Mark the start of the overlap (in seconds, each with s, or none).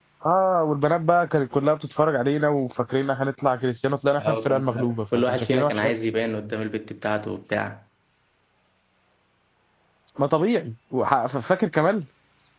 4.2 s